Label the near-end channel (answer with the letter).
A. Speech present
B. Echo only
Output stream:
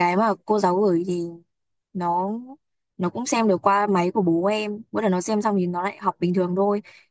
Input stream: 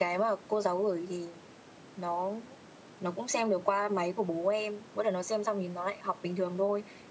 B